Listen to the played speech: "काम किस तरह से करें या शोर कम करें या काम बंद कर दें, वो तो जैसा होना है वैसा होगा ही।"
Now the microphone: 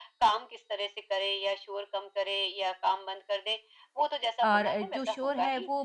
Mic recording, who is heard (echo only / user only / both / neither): both